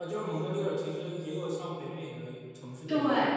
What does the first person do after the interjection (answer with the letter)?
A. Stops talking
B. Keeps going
A